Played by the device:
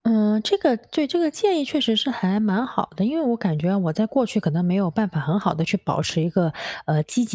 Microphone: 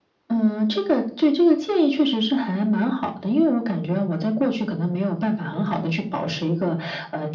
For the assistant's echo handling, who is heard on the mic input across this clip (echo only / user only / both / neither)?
echo only